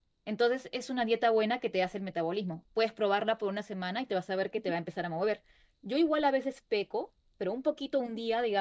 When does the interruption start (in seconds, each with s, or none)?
none